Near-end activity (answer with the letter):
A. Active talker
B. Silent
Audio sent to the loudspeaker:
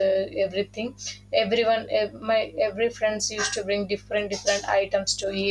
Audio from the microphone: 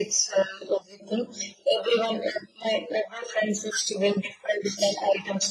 B